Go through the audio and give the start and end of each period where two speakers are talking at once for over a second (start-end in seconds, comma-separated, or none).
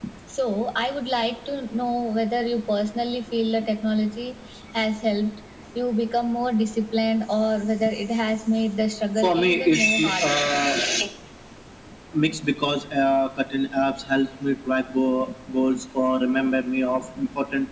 9.2-10.5